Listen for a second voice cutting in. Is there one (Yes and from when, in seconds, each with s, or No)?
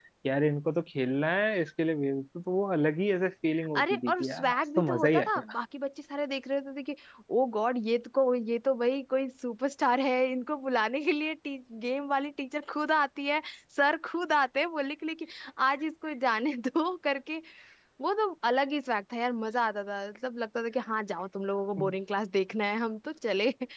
Yes, from 3.5 s